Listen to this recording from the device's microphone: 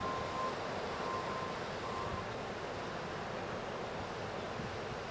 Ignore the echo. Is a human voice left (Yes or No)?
No